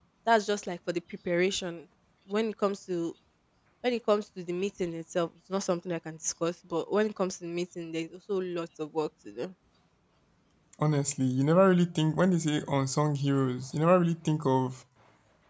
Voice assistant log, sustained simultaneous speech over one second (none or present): none